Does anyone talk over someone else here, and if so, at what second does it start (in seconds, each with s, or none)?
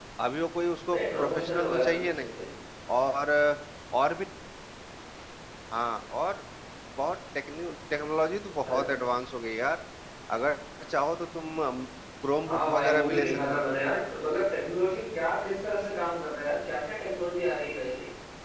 0.9 s